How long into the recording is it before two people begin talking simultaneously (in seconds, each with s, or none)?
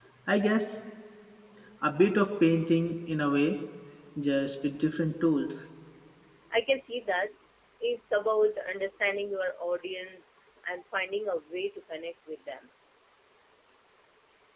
none